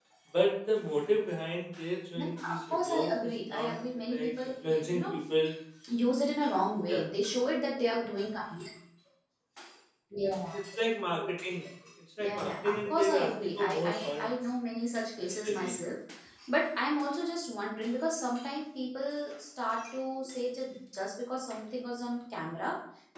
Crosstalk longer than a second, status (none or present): present